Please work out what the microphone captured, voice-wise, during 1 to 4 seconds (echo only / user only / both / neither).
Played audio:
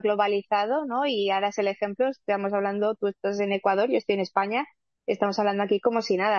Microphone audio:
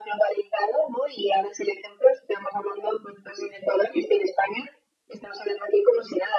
echo only